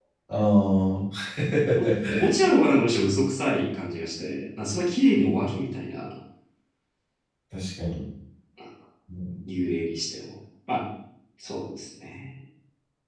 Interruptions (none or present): none